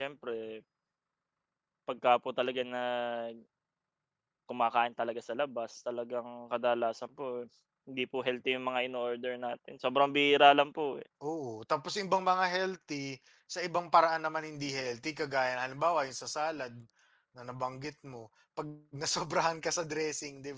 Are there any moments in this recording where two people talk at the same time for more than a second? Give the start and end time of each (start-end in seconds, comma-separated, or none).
none